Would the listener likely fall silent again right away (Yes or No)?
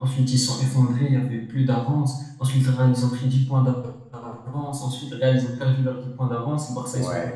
Yes